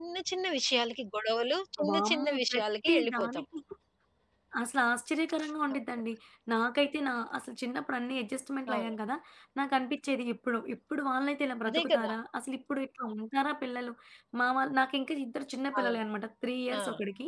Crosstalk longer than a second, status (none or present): present